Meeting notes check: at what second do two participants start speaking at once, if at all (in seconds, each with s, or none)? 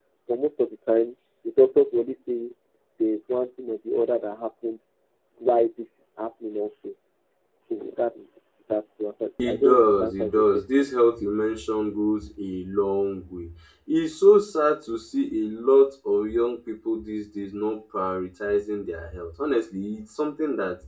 9.4 s